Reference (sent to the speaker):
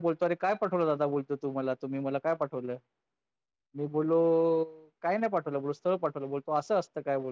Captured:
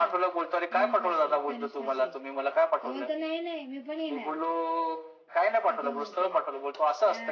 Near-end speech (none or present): present